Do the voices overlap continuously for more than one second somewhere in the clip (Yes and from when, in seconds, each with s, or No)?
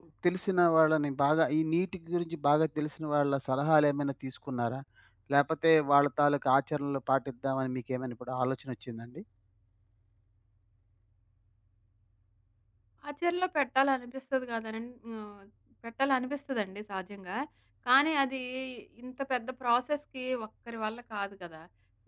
No